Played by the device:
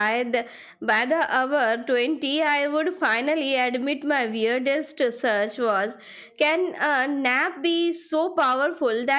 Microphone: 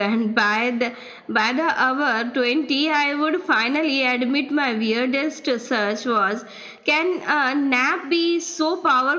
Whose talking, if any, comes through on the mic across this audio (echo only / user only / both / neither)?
echo only